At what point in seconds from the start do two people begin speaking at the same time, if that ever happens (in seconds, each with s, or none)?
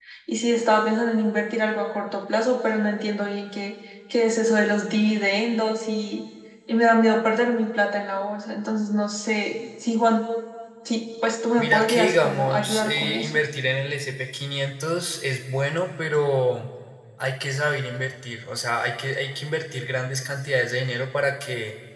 11.6 s